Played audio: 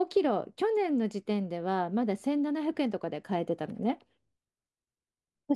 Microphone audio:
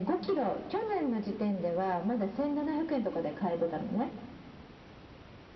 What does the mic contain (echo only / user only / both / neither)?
echo only